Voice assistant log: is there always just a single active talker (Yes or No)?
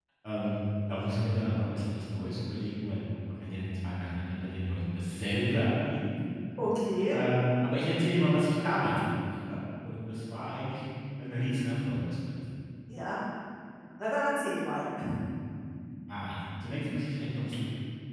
Yes